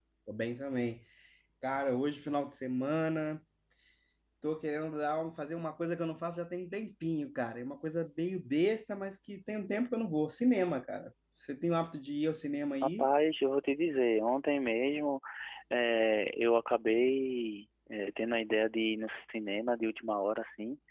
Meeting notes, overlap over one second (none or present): none